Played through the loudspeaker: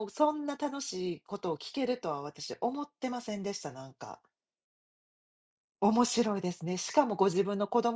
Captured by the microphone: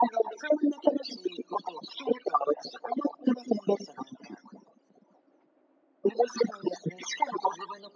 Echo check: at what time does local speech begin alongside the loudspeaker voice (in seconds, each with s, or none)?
none